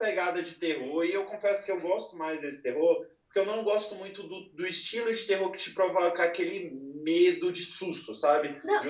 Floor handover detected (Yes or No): No